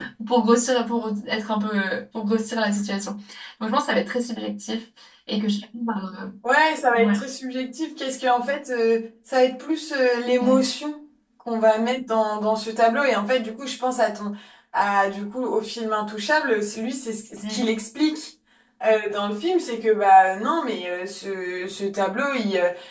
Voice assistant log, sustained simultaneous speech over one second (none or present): none